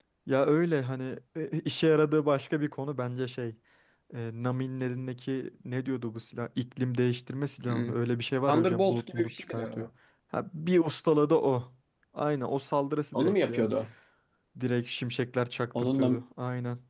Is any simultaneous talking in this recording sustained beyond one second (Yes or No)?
Yes